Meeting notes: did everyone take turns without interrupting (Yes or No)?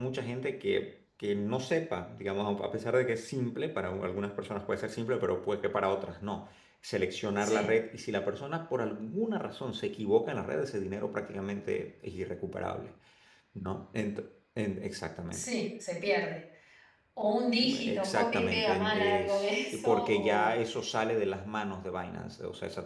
No